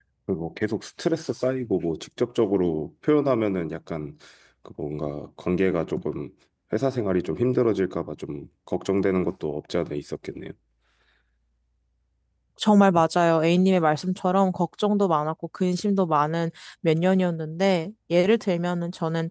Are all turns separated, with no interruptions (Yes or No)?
Yes